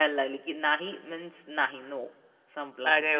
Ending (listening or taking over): taking over